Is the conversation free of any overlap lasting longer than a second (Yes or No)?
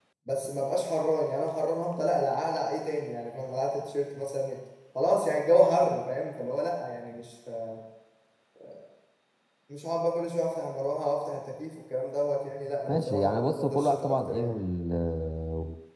No